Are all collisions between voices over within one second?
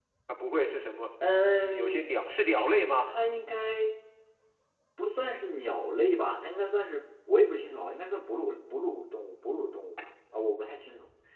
Yes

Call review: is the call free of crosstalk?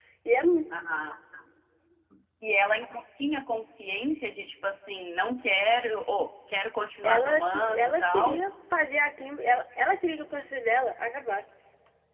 No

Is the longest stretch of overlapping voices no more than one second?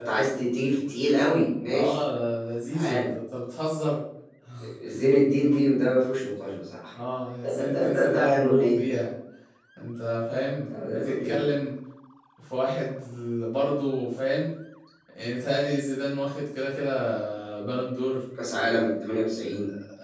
No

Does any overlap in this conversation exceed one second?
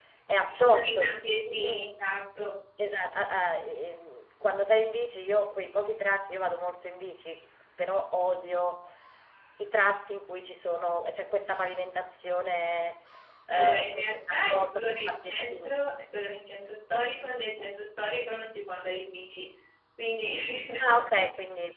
Yes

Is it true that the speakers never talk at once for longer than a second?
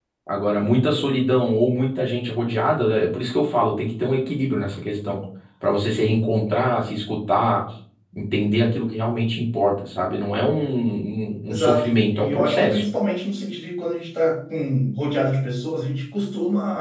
No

